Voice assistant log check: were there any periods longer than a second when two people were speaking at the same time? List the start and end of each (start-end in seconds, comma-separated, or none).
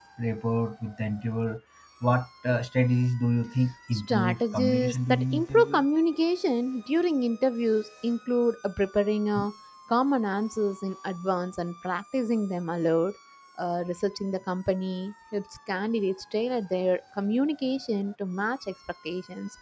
3.9-5.8